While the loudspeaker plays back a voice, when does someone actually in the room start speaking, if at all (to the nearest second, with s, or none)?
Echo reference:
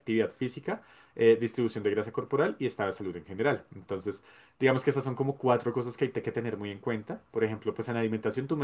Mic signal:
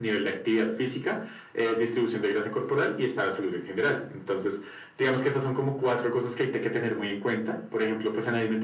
none